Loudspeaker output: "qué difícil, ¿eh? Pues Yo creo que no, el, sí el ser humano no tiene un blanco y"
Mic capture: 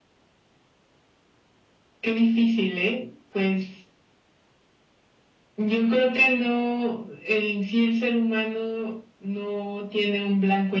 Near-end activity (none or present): none